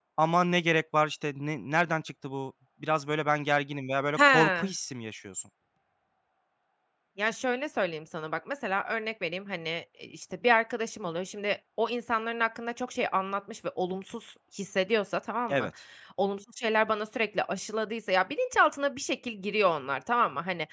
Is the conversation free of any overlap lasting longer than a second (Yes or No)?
Yes